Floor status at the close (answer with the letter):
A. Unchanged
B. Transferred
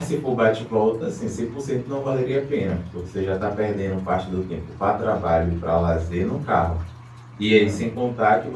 A